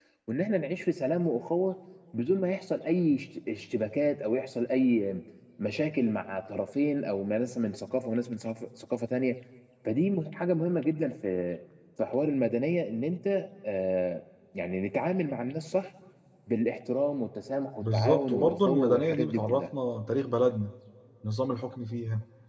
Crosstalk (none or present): present